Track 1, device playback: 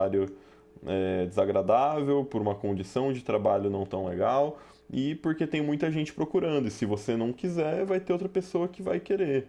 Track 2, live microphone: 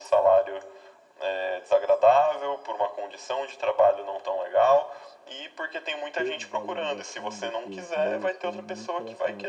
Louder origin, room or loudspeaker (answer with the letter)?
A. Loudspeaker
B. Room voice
A